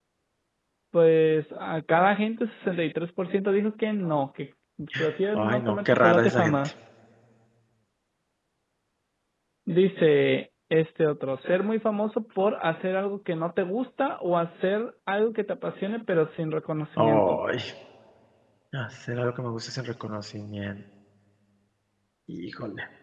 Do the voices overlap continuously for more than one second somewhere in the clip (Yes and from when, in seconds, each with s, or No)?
Yes, from 5.3 s